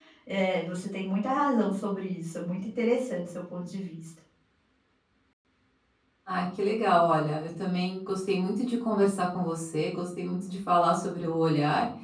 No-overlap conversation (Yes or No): Yes